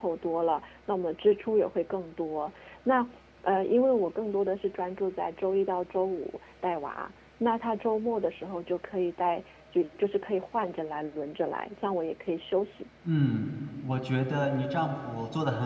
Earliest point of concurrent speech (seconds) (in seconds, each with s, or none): none